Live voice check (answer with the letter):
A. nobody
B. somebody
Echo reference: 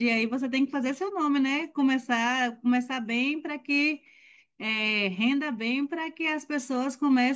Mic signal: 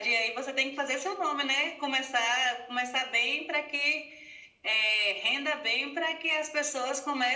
A